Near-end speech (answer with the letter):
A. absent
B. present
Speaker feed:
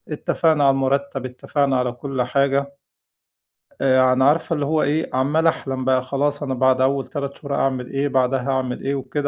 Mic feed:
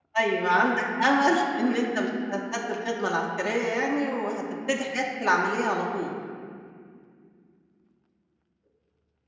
B